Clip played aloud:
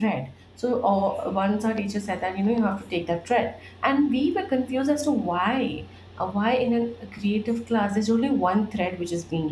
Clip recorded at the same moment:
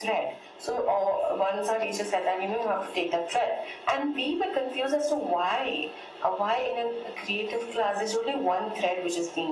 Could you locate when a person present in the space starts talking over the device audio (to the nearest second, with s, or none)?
none